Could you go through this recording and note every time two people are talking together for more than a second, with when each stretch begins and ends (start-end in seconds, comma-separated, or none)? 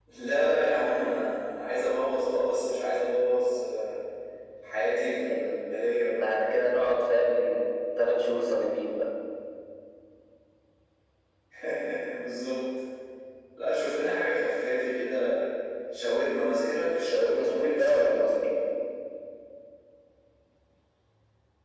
17.0-18.3